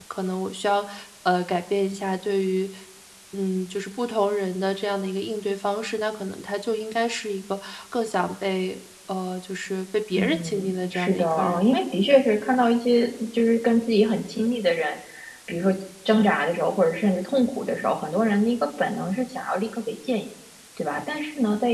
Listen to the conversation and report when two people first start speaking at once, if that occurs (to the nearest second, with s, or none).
10 s